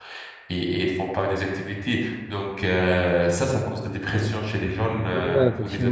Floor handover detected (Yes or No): Yes